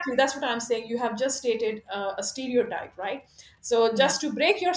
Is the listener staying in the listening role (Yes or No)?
Yes